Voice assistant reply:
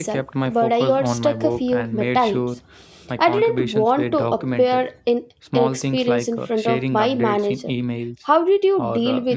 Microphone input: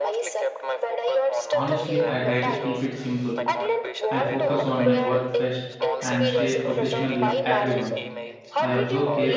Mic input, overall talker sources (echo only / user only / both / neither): both